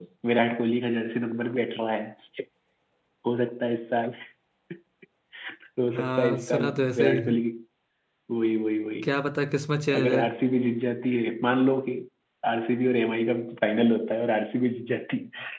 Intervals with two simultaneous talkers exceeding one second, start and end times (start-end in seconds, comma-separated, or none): 5.9-7.4